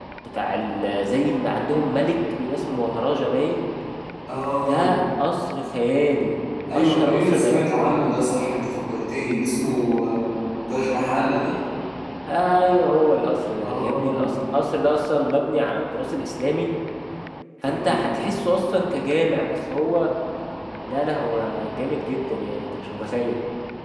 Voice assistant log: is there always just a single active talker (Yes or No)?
No